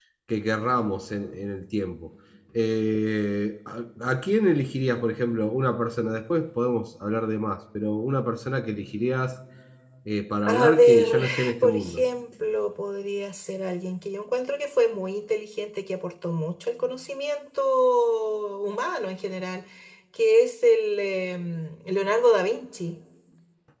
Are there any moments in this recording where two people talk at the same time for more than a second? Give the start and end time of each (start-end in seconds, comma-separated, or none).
10.4-12.0